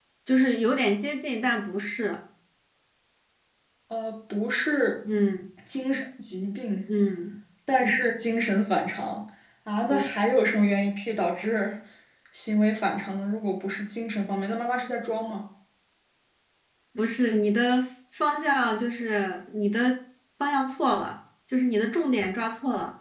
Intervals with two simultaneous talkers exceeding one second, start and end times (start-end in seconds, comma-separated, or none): none